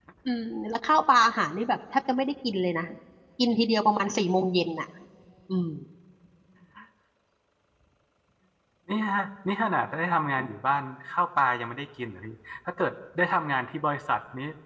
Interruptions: none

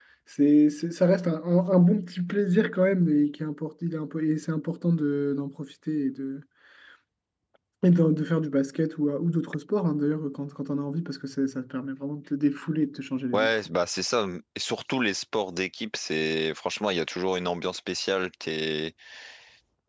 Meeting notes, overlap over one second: none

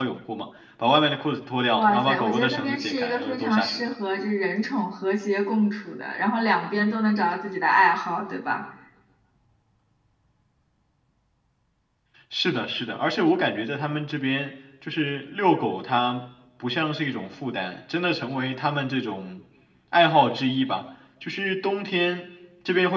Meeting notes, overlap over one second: present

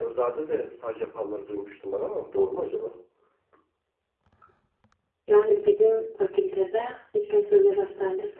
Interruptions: none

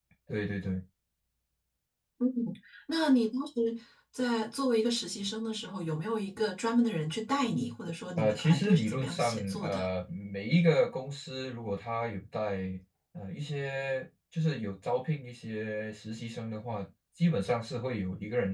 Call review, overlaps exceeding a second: present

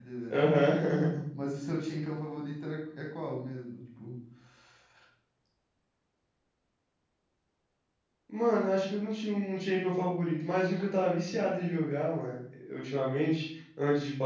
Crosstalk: none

